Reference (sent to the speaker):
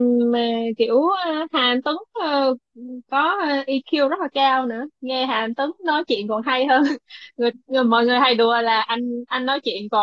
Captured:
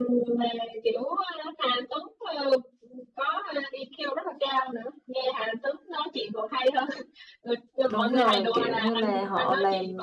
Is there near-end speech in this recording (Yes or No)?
Yes